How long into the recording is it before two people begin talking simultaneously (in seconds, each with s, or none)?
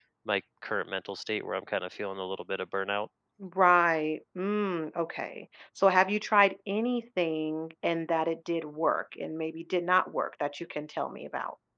none